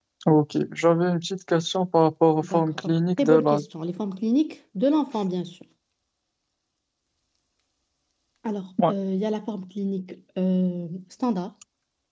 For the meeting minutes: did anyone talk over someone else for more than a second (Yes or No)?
Yes